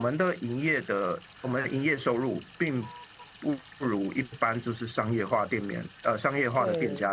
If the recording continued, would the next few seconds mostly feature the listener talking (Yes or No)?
No